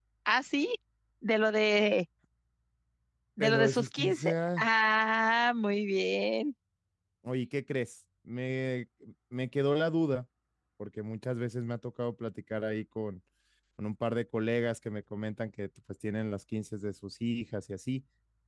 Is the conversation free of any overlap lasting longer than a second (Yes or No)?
No